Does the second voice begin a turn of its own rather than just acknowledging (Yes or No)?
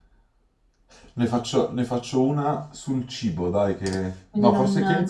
Yes